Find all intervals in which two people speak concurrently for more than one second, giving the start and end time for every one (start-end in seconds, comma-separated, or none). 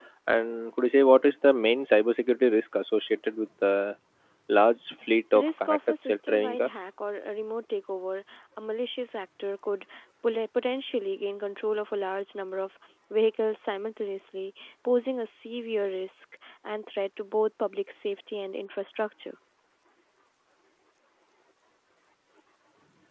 5.3-6.8